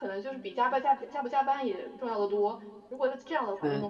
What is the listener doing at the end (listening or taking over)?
listening